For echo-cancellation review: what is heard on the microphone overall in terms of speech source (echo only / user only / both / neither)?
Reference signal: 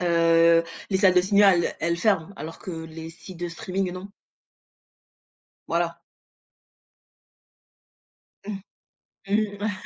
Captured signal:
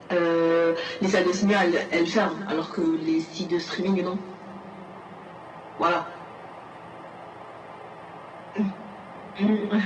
echo only